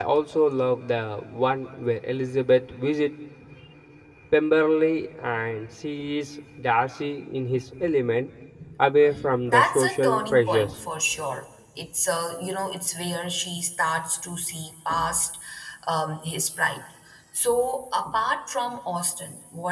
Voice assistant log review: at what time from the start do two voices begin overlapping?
9.5 s

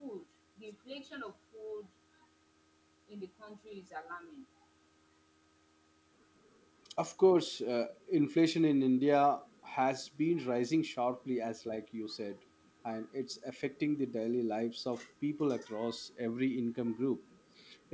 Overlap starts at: none

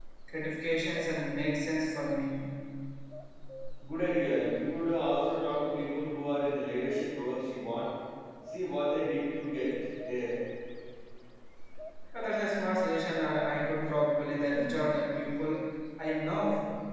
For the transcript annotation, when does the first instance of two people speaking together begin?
none

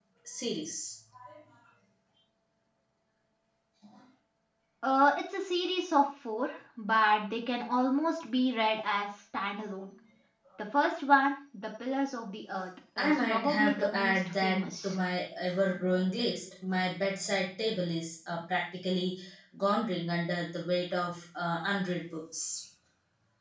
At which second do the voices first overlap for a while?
13.0 s

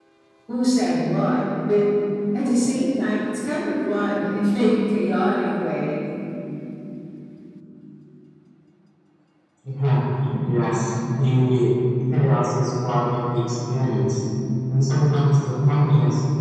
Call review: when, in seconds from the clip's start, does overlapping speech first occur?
none

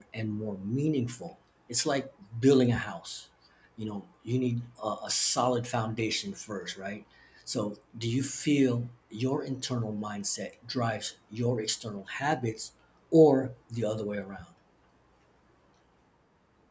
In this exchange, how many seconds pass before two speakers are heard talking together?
none

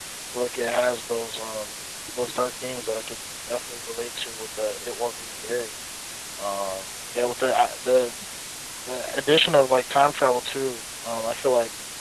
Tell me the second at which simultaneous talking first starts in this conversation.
none

